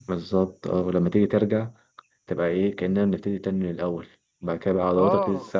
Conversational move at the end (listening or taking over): listening